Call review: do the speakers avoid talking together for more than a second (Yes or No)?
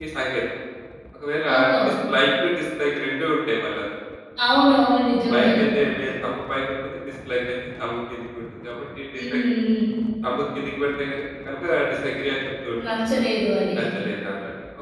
Yes